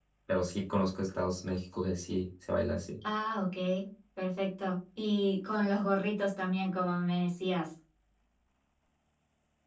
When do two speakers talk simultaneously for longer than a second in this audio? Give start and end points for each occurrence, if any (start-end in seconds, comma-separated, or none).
none